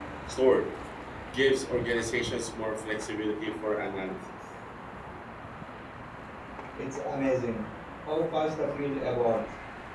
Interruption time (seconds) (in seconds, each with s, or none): none